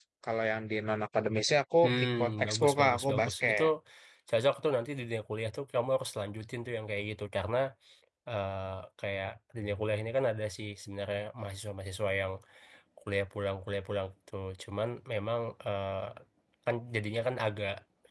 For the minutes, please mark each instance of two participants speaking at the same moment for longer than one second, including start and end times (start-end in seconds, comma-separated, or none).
1.8-3.6